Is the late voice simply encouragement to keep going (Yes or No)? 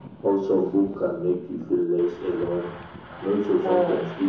Yes